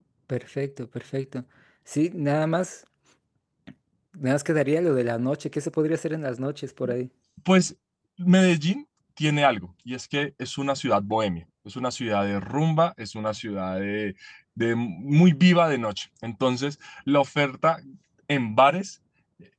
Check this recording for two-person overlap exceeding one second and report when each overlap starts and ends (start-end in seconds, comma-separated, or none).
none